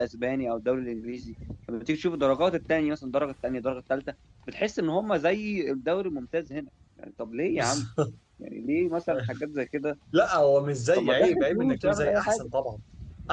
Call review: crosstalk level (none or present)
present